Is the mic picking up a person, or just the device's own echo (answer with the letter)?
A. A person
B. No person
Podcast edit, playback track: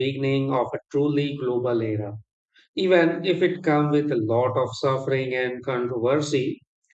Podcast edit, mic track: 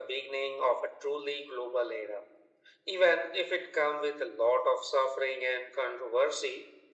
B